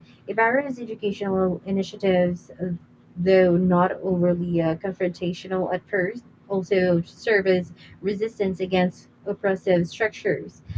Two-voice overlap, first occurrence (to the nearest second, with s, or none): none